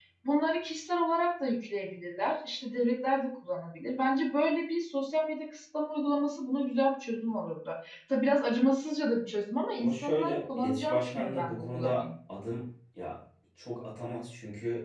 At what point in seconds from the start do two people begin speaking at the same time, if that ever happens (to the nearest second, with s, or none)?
10 s